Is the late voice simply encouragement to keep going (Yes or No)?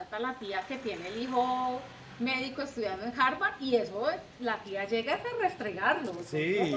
No